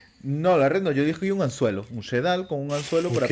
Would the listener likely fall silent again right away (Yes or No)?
Yes